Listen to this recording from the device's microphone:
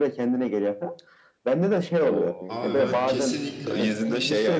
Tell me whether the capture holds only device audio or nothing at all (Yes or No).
No